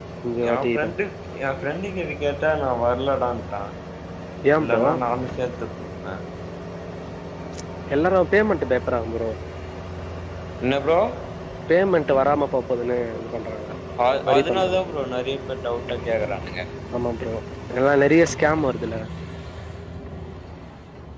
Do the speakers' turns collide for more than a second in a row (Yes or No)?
No